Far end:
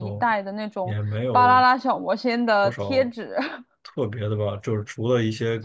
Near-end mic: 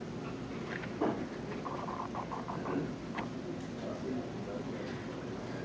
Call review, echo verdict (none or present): none